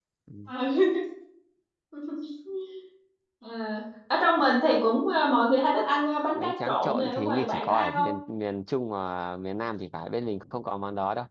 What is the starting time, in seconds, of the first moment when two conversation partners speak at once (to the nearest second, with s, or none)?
6 s